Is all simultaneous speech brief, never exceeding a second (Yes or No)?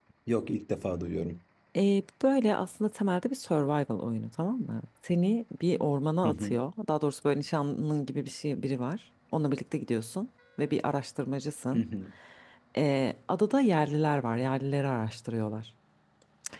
Yes